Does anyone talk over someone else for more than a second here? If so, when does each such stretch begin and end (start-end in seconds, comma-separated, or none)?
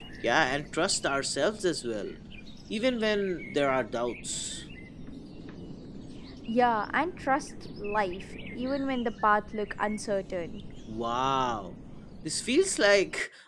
none